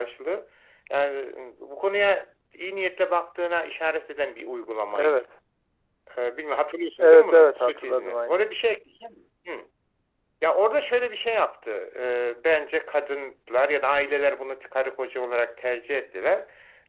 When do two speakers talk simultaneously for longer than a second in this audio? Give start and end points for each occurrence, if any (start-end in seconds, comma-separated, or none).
7.0-8.5